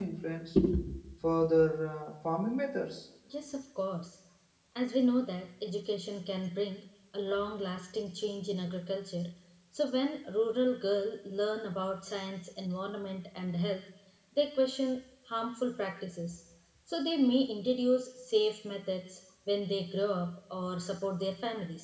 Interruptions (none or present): none